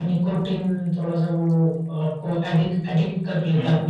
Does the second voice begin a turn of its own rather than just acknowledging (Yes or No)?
Yes